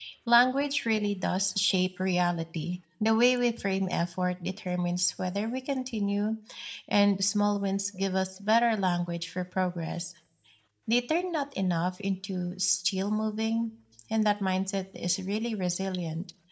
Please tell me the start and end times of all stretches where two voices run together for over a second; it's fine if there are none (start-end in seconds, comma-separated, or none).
none